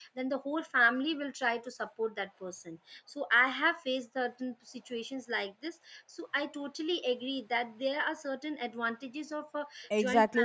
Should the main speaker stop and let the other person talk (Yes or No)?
Yes